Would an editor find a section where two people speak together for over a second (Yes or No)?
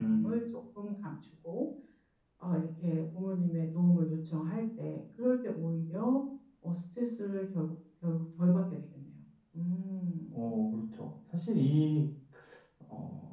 No